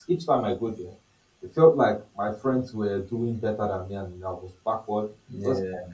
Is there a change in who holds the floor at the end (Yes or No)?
No